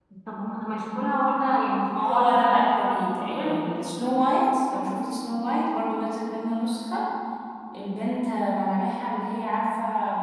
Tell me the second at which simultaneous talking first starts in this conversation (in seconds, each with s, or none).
1.9 s